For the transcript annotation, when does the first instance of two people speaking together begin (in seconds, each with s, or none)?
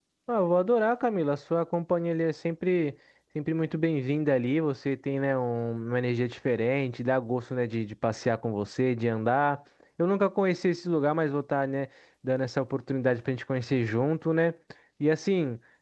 none